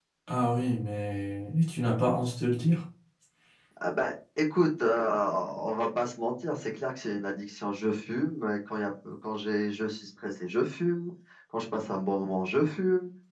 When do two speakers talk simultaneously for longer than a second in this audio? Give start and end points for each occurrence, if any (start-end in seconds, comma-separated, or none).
none